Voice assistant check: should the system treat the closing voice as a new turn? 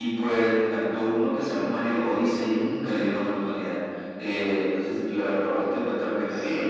Yes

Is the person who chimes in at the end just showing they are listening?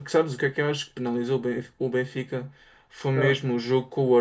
Yes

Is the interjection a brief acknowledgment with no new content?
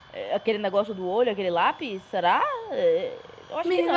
No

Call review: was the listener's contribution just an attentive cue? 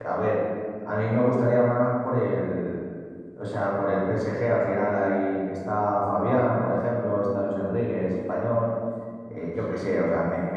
Yes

